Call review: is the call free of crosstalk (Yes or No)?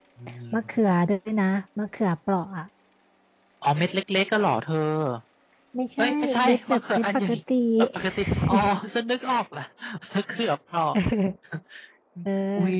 No